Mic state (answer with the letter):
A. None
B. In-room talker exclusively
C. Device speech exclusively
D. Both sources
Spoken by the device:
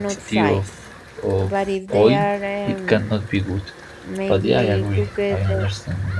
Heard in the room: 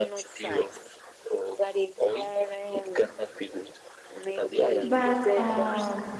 D